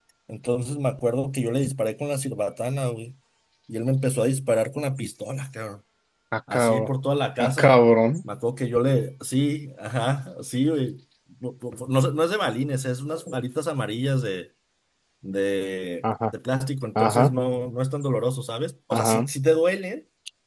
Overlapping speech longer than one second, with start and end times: none

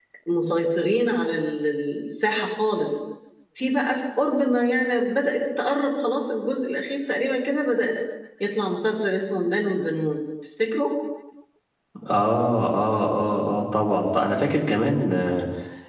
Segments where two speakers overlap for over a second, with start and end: none

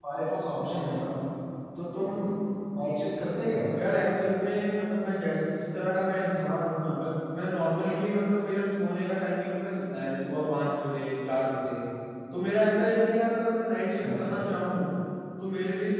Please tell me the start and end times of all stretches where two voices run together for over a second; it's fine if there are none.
none

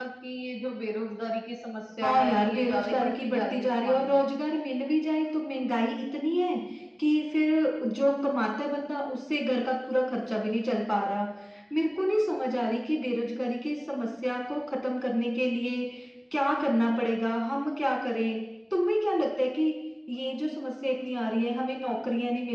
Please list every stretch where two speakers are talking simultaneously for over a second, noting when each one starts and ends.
2.0-4.2

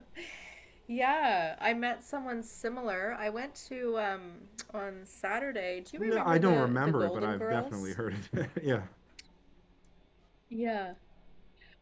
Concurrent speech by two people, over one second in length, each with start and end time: 6.0-7.9

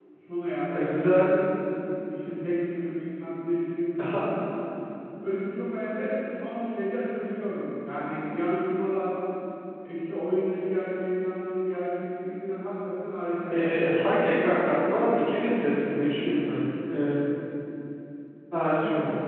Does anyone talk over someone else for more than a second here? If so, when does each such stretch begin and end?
none

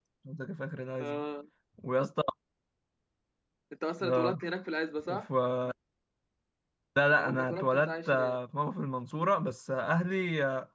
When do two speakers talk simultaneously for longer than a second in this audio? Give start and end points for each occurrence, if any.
7.1-8.4

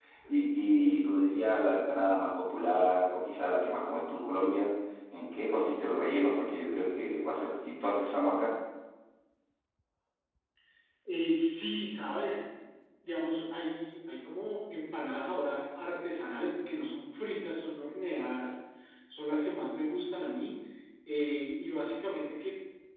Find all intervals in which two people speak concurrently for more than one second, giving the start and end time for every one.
none

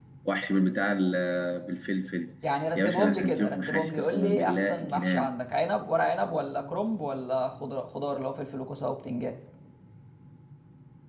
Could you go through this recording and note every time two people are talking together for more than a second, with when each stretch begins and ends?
2.8-5.3

